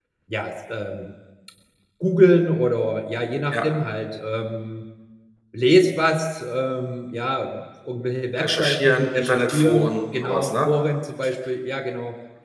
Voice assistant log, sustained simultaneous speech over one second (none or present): present